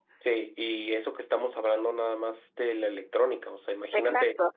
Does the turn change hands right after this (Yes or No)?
Yes